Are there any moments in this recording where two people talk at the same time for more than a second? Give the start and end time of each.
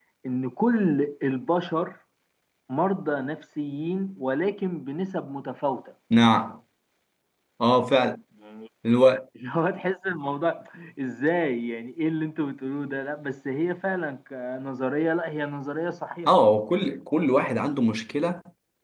none

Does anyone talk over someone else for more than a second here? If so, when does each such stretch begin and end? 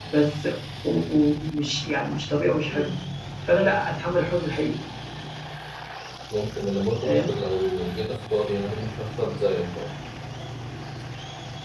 none

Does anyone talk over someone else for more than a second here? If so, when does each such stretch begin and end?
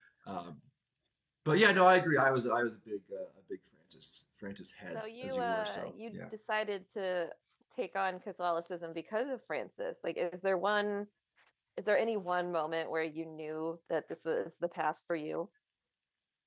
4.9-6.2

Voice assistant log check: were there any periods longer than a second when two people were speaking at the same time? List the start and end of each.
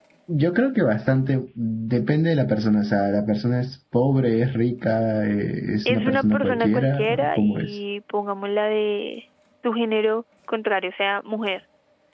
5.9-7.8

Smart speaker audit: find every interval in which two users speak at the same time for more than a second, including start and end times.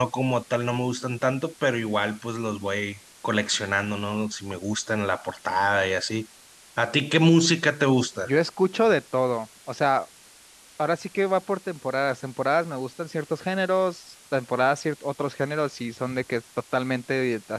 none

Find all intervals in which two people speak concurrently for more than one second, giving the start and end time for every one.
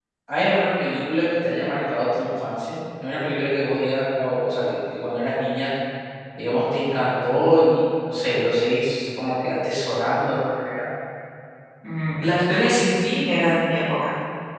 none

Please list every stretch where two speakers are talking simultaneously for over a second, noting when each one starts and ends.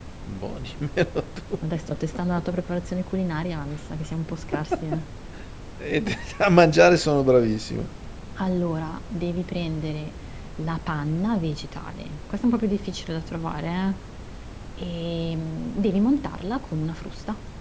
none

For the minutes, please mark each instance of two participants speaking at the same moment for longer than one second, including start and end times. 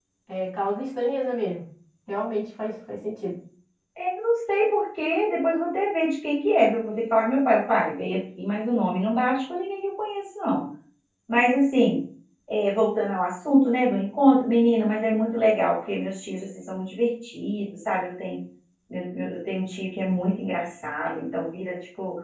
none

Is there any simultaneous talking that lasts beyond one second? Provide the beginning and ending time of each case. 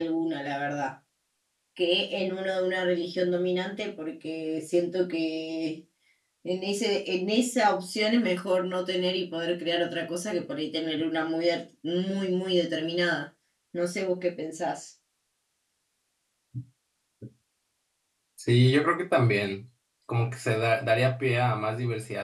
none

